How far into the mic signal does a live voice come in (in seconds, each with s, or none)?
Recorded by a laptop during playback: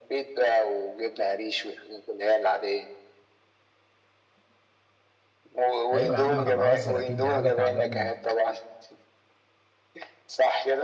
5.9 s